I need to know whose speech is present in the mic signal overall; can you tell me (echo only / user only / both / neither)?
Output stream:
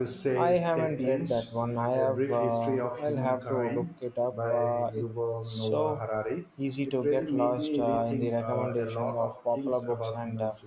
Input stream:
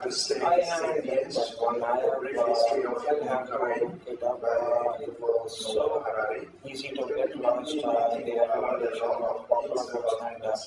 echo only